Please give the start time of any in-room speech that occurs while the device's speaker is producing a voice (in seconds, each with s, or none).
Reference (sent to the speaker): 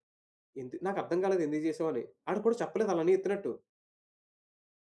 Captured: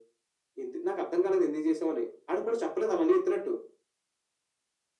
none